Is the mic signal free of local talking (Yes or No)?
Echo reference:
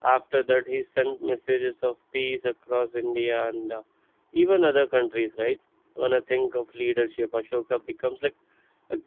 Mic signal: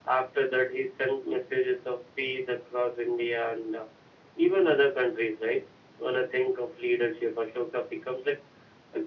Yes